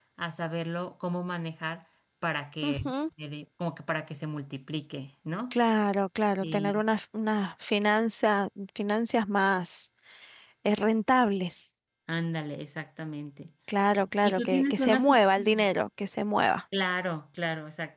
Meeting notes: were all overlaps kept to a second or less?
No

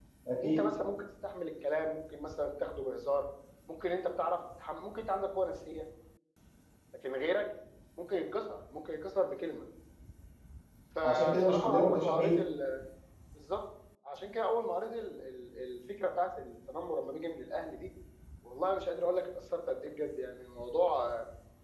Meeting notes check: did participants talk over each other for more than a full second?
Yes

